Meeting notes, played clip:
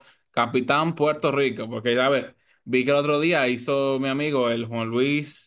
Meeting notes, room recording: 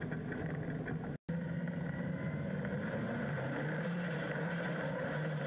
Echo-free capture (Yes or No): Yes